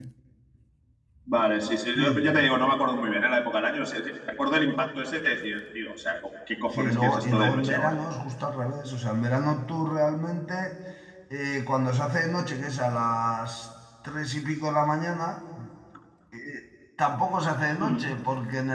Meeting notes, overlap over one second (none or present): present